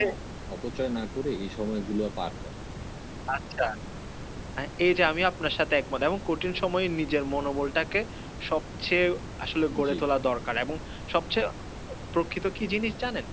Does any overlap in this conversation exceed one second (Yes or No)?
No